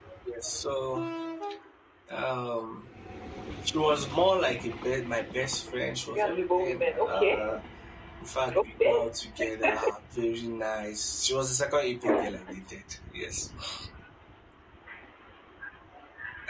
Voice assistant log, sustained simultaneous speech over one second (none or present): present